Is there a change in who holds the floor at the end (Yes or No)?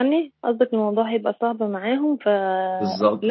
Yes